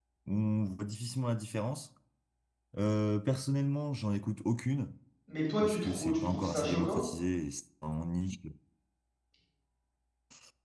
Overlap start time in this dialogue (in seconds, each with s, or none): 5.6 s